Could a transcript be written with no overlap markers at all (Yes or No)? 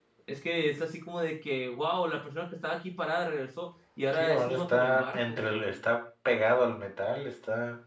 No